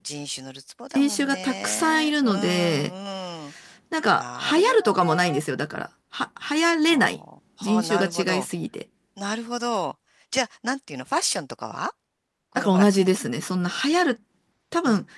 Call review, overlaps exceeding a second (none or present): present